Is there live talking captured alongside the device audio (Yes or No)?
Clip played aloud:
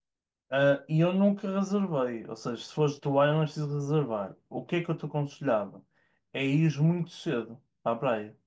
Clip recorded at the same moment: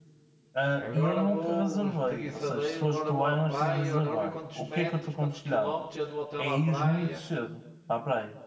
Yes